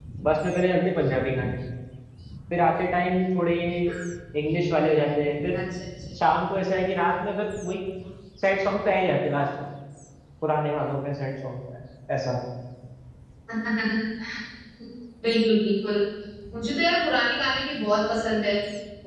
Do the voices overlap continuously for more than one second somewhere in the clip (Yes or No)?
No